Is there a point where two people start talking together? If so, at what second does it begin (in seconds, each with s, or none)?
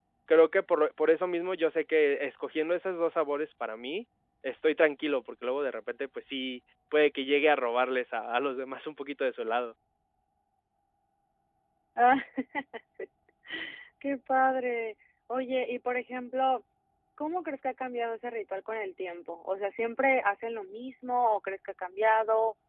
none